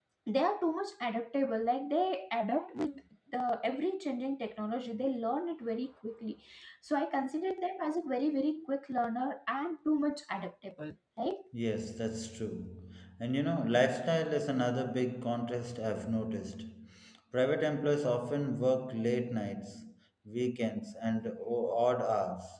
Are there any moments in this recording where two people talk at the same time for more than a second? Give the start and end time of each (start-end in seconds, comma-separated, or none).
none